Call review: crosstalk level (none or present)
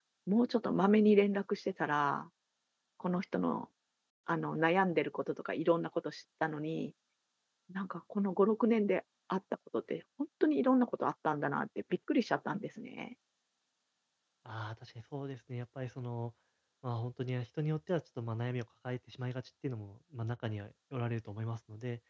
none